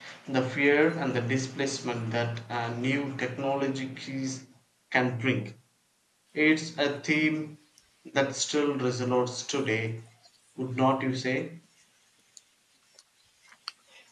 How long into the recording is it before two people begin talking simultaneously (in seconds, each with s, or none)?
none